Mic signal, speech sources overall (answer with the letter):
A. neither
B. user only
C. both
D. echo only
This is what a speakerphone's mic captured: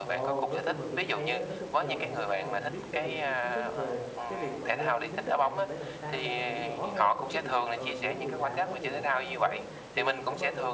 C